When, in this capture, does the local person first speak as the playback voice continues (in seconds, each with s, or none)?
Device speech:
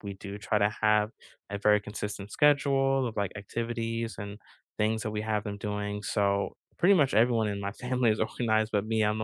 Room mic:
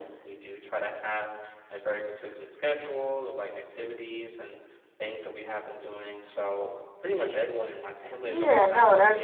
8.2 s